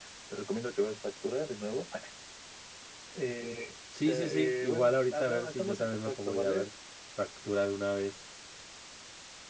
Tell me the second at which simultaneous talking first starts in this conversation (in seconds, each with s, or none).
4.0 s